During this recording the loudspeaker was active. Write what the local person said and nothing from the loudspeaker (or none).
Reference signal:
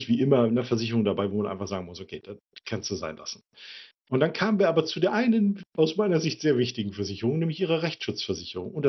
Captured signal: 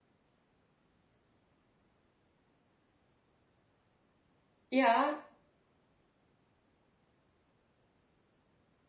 Ja,